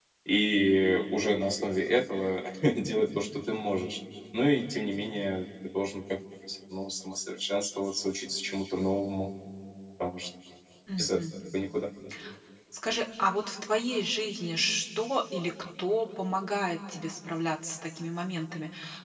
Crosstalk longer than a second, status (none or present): none